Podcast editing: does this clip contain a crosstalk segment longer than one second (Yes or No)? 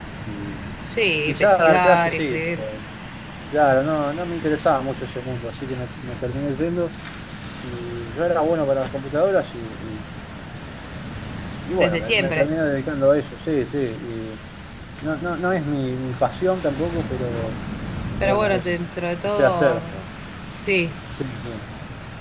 Yes